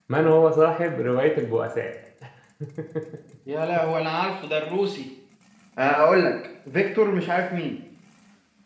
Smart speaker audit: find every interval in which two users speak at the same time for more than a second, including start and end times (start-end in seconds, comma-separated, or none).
none